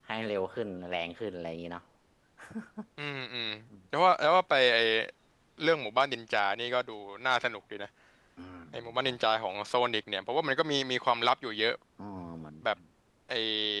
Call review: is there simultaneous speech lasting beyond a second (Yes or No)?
No